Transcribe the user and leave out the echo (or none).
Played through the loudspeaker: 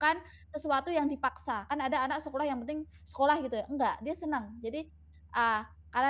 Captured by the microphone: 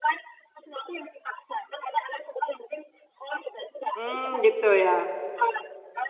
Hmm gitu ya.